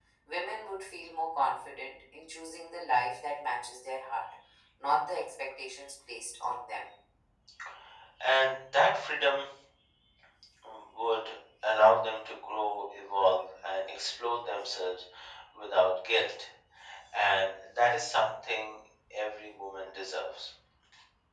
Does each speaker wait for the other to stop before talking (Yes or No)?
Yes